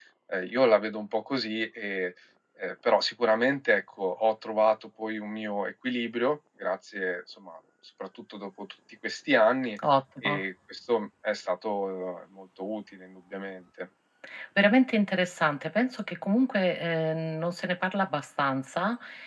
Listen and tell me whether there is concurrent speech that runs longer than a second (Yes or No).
No